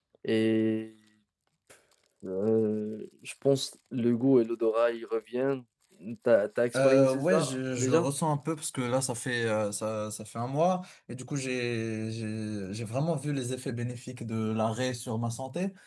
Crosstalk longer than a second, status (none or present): present